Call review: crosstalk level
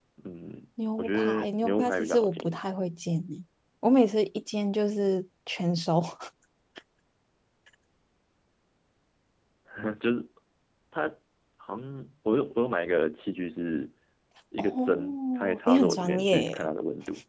present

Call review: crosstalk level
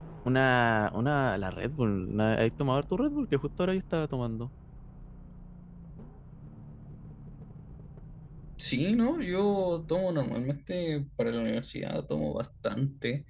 none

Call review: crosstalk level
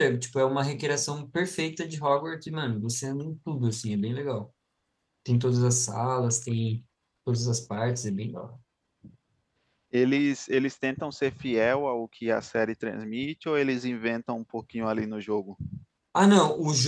none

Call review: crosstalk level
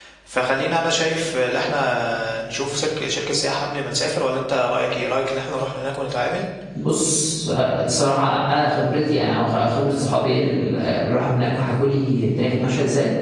none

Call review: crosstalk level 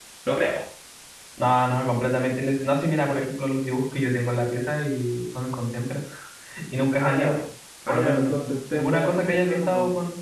present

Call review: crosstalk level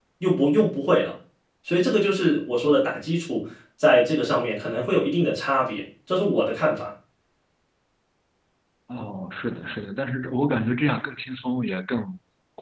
none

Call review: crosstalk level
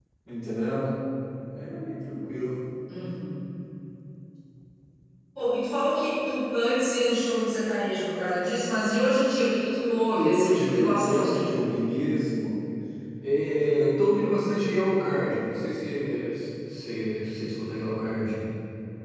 present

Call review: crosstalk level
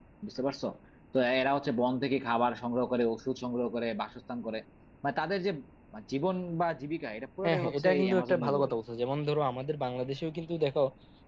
present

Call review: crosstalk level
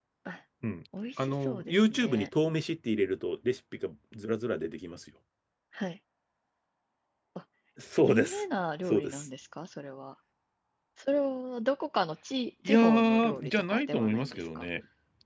present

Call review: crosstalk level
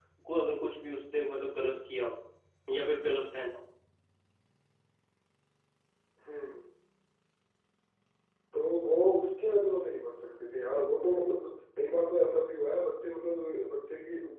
none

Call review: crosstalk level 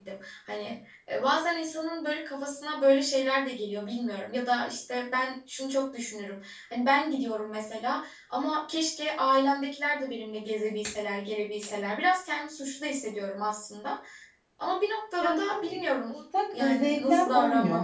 present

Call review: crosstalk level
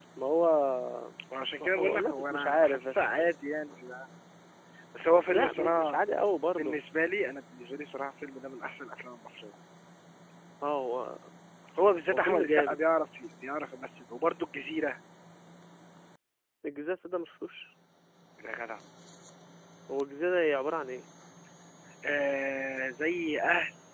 present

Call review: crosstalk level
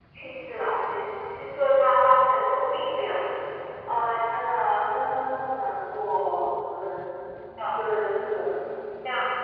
none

